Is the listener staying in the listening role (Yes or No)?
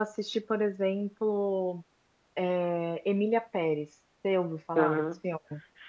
No